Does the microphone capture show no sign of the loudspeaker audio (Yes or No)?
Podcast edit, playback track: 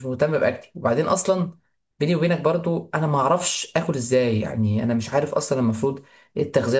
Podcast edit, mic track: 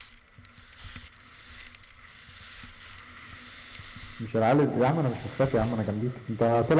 Yes